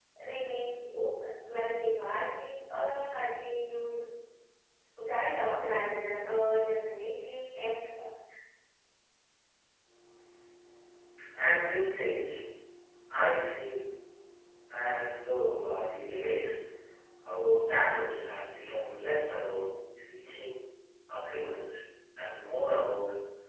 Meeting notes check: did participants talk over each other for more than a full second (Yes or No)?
No